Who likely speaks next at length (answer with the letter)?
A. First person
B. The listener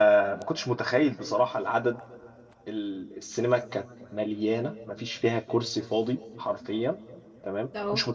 A